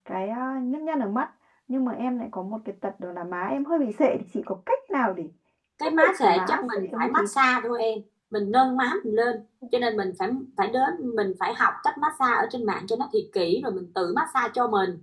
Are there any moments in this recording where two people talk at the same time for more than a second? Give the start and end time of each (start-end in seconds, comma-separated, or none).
6.0-7.3